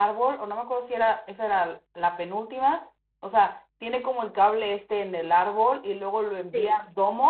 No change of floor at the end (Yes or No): Yes